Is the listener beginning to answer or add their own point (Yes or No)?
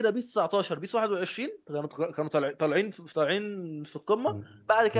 Yes